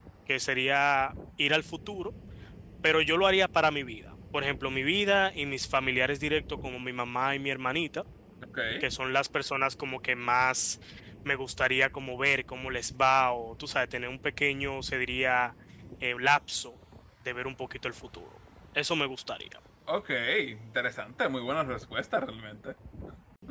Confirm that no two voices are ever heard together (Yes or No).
Yes